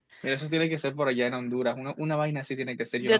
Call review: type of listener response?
taking over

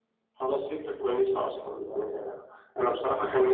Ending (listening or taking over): listening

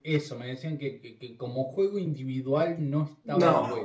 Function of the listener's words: listening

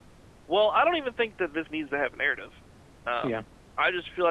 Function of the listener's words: listening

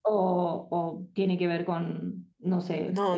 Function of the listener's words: taking over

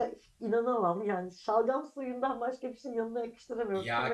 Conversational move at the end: taking over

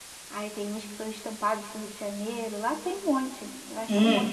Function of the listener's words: taking over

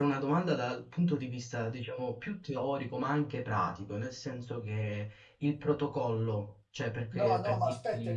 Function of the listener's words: taking over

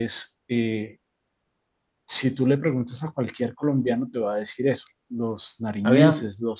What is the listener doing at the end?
listening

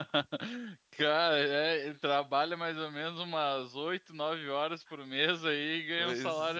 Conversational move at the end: taking over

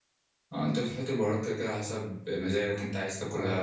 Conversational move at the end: taking over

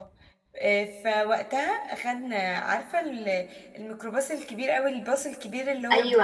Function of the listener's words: taking over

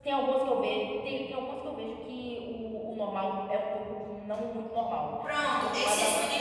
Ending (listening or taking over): taking over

